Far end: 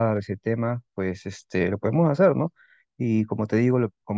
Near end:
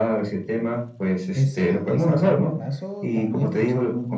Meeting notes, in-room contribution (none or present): present